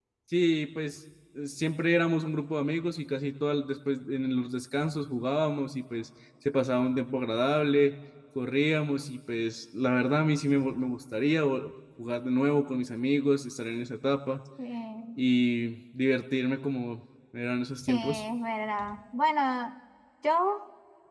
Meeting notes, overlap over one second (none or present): none